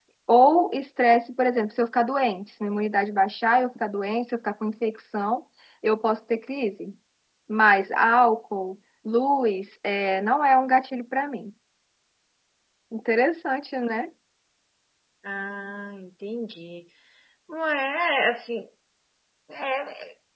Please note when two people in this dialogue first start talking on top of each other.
none

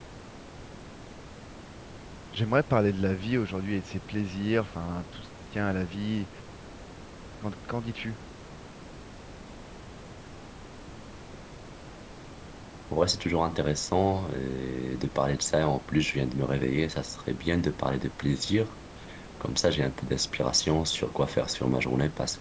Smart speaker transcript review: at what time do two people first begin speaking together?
none

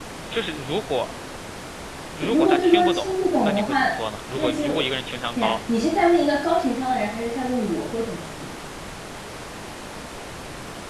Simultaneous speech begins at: 2.3 s

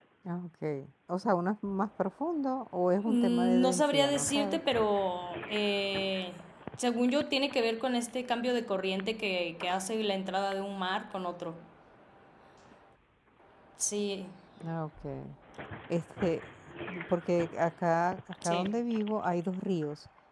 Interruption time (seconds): 3.0 s

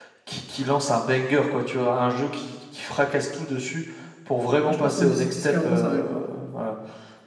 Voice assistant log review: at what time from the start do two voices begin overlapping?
4.7 s

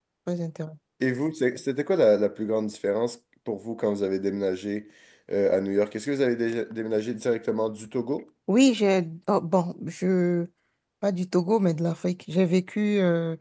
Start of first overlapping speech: none

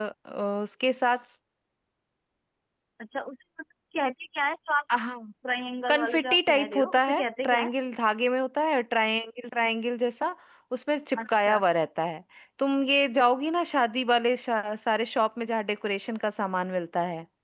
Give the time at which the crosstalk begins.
5.9 s

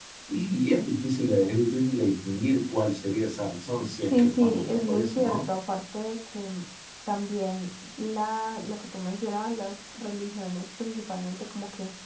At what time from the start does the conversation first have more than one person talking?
4.1 s

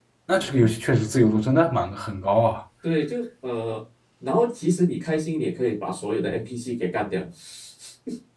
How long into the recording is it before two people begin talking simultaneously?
none

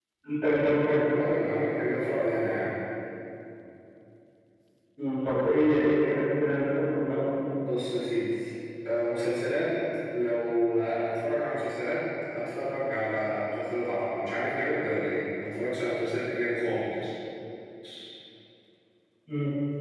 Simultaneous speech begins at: none

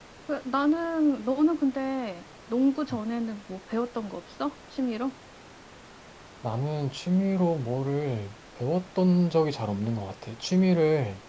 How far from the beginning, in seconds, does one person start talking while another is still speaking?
none

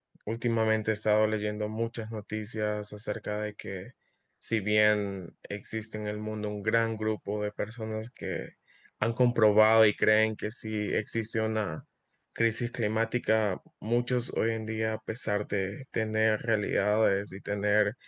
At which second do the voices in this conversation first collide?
none

